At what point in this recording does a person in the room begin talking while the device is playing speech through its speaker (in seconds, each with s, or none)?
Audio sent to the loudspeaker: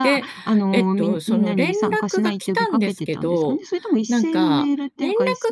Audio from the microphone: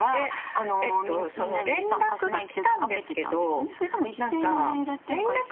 none